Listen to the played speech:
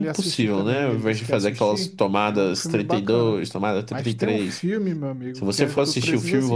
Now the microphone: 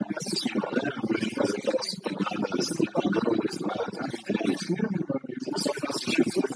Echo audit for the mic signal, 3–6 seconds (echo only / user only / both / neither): echo only